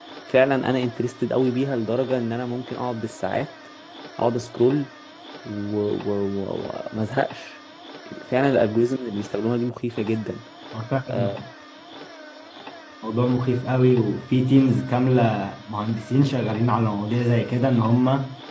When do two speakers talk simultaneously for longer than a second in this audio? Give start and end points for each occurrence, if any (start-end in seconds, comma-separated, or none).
none